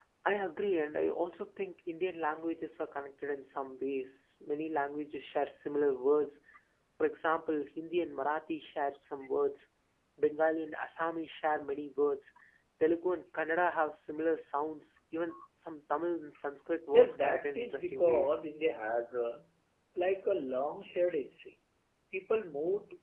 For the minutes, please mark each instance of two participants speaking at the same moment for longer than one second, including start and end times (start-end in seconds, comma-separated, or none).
16.9-18.4